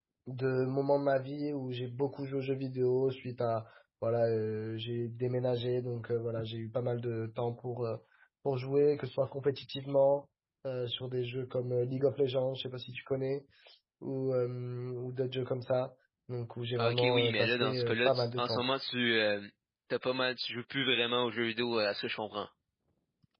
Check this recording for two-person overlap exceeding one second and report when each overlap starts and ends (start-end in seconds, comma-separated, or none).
16.8-18.6